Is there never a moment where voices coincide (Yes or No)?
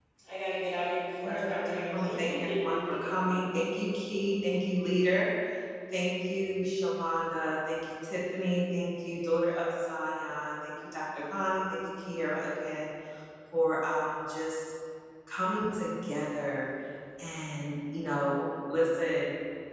No